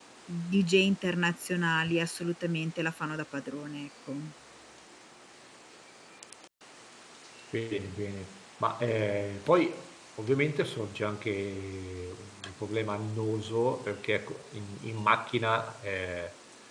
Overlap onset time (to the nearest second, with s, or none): none